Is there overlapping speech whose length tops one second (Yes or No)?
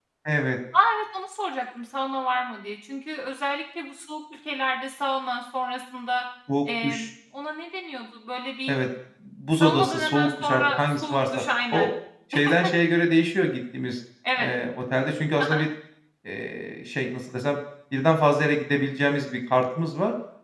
Yes